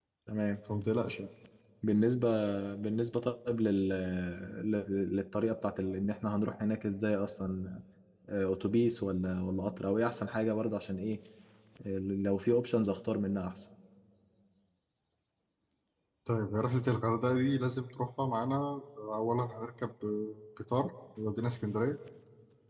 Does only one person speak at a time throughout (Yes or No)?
Yes